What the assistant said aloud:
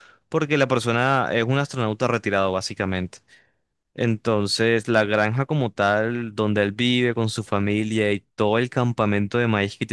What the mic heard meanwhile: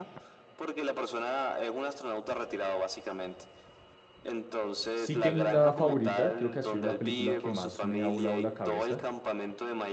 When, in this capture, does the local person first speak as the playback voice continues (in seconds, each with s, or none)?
4.9 s